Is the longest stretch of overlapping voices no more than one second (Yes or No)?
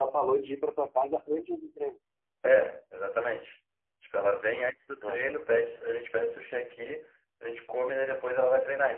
Yes